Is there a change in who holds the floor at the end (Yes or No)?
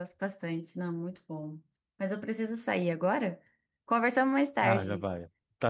Yes